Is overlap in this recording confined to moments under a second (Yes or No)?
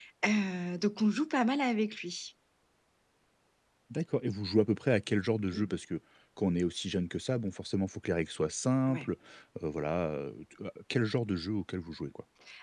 Yes